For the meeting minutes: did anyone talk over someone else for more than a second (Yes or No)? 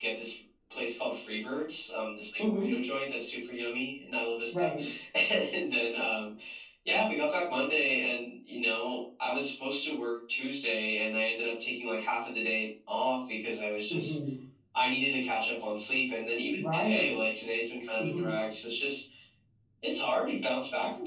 No